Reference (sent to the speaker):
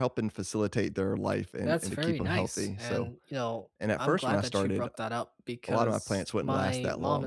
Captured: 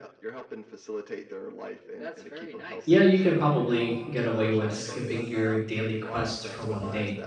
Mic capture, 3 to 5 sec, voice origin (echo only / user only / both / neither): both